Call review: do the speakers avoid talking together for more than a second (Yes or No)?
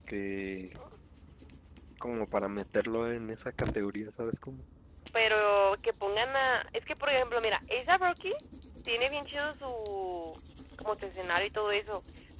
Yes